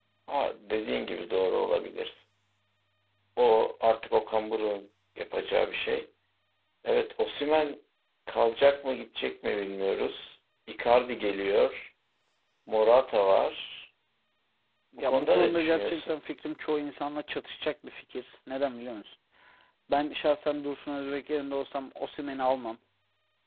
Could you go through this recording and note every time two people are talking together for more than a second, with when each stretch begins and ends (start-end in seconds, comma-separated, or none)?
15.0-16.2